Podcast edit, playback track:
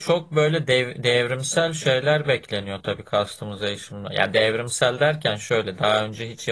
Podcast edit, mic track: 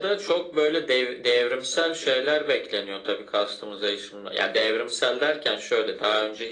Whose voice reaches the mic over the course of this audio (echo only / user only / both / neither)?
echo only